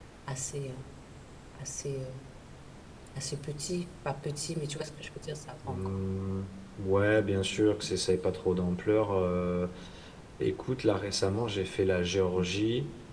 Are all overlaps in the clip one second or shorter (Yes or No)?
Yes